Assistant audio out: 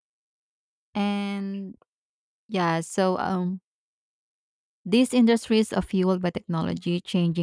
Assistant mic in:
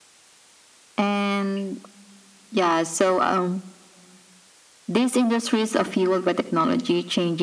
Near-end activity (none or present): none